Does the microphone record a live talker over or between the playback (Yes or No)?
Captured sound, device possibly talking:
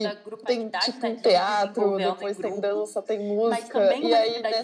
Yes